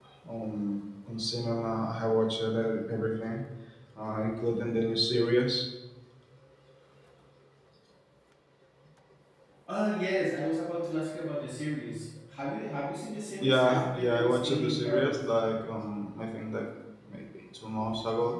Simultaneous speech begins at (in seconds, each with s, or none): 13.4 s